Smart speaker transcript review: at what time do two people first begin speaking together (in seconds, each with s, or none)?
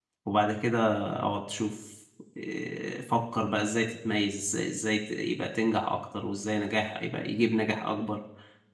none